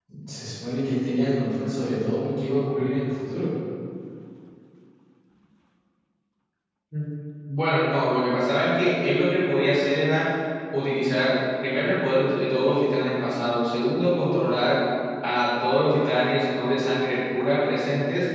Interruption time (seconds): none

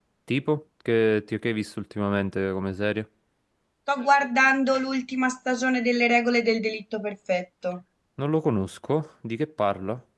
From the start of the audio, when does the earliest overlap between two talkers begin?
none

